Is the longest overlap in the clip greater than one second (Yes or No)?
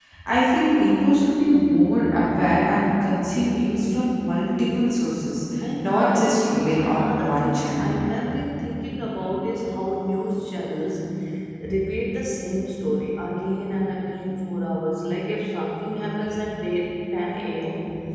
Yes